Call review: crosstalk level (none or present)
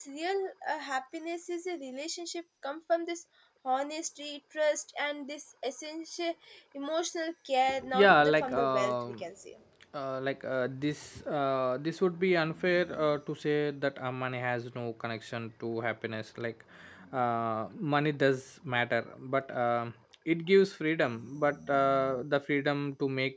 present